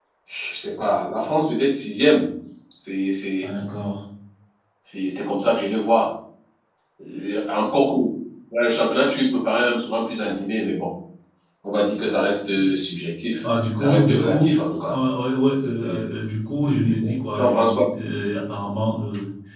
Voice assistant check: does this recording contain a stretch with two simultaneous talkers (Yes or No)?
Yes